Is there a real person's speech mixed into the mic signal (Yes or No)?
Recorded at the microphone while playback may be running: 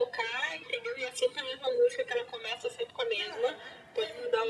Yes